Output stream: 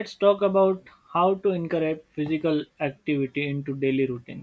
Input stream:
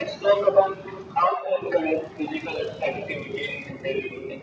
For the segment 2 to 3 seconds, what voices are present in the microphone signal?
echo only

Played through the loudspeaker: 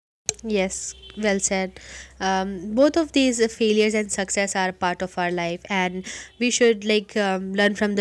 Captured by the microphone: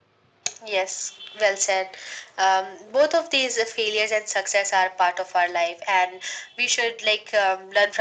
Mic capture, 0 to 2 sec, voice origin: echo only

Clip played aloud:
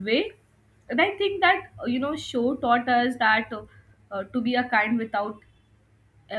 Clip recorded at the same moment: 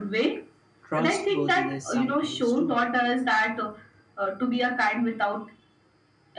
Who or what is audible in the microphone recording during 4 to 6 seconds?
echo only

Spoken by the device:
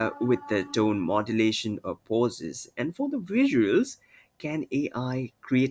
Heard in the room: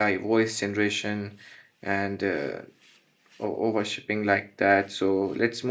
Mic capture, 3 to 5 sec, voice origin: user only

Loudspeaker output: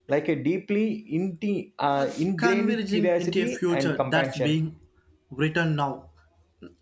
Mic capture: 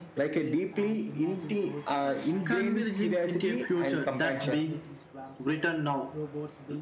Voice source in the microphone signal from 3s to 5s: both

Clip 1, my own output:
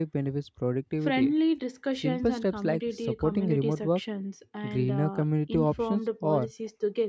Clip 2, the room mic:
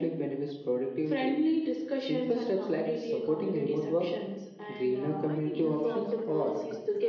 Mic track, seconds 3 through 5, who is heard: echo only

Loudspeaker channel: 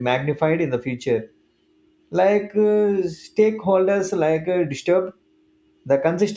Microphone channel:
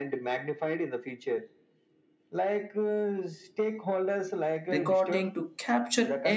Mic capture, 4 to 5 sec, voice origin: both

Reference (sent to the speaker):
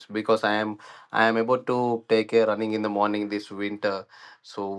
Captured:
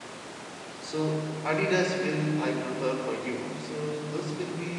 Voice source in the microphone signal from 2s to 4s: user only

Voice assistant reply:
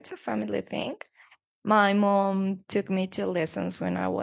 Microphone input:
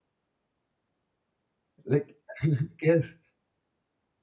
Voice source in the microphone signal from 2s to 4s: user only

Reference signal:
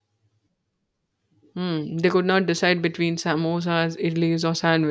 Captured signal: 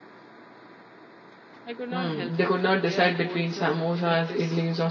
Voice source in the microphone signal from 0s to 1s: neither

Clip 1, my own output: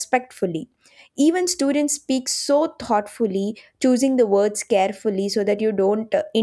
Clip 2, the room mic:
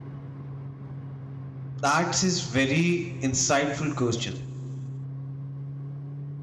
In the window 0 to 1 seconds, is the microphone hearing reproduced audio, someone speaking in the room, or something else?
neither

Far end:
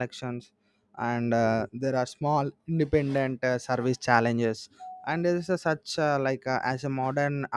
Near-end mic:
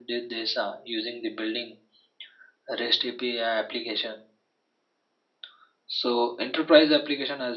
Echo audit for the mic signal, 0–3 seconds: user only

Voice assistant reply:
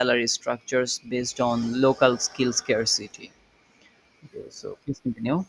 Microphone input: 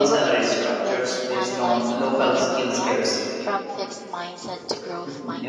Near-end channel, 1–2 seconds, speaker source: both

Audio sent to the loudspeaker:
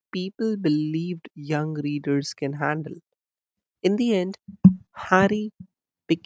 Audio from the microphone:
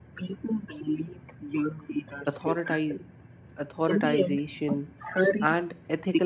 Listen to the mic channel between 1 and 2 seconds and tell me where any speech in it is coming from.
echo only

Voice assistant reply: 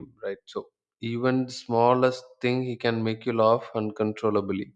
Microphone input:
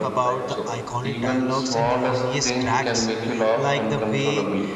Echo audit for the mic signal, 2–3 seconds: both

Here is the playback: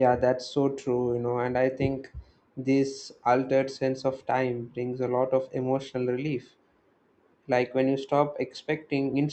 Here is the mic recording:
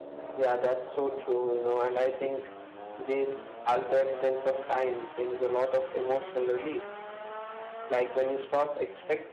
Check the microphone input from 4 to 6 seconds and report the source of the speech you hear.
echo only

